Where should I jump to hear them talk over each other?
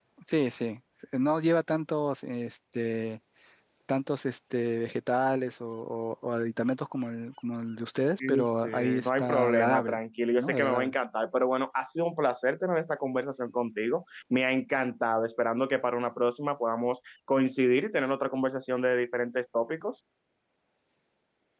8.0 s

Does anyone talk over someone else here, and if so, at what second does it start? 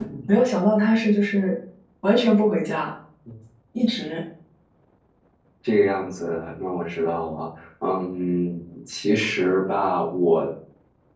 none

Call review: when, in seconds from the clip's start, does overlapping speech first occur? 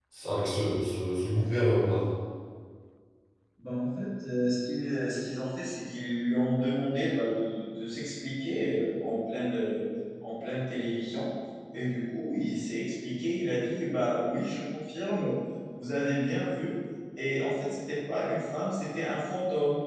none

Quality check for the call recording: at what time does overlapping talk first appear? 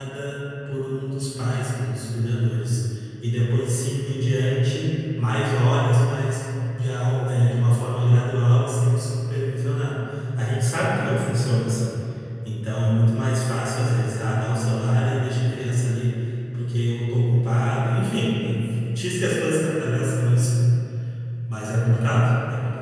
none

